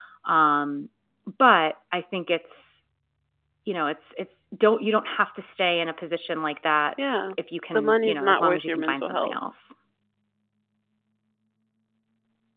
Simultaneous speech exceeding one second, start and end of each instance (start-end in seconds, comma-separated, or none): 7.7-9.4